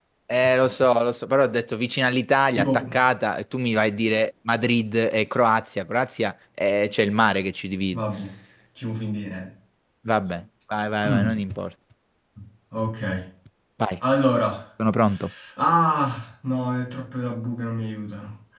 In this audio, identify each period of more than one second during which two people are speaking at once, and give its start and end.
none

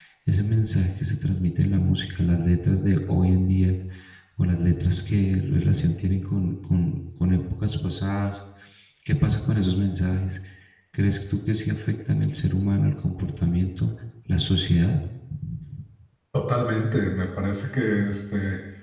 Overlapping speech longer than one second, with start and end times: none

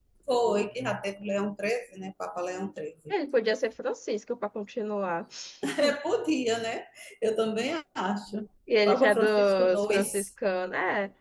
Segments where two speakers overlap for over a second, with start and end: 8.8-10.2

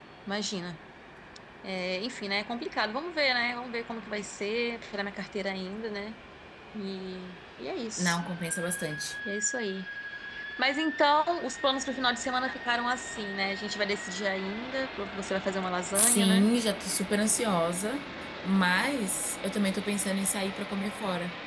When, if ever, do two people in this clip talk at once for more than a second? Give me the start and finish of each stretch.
none

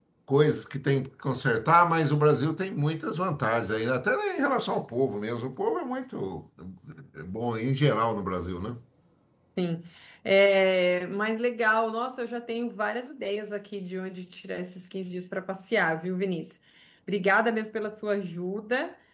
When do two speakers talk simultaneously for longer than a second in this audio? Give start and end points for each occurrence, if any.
none

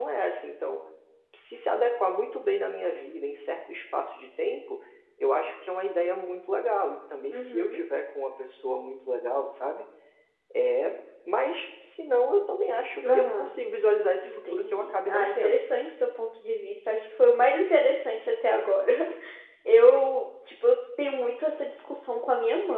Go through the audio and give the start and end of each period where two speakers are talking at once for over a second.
14.2-15.6

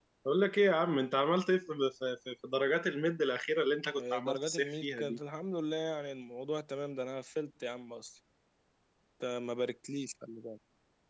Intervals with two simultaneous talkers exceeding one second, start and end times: 4.0-5.2

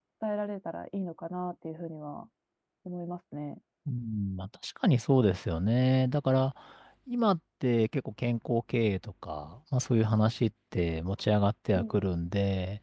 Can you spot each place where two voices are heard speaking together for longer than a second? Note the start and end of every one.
none

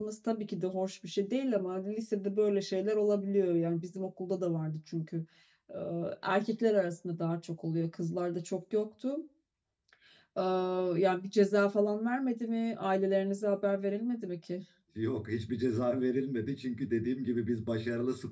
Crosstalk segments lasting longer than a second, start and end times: none

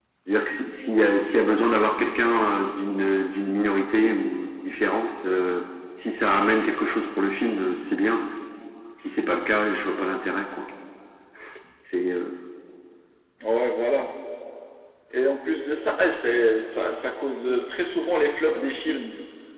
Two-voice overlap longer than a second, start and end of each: none

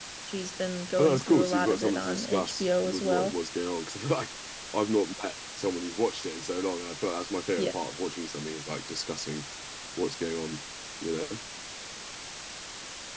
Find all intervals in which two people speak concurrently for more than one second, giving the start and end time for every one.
1.0-3.4

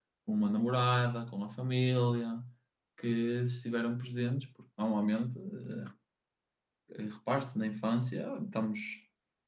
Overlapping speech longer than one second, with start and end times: none

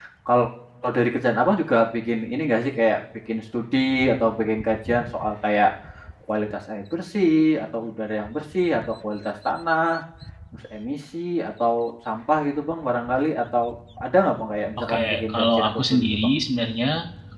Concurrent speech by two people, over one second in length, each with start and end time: 14.8-16.3

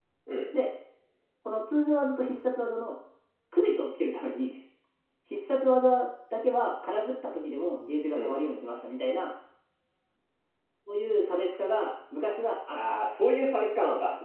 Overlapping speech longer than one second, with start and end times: none

